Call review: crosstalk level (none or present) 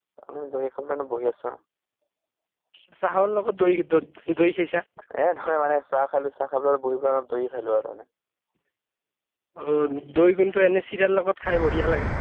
none